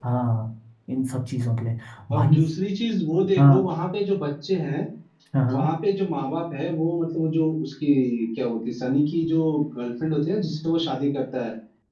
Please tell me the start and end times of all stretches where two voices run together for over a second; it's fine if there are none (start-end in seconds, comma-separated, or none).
none